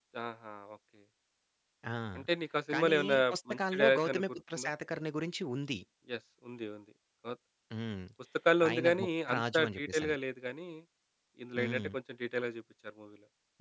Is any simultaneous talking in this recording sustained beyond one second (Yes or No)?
Yes